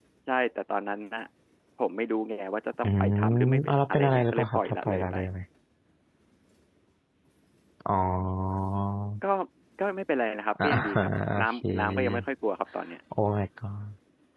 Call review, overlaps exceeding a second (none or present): present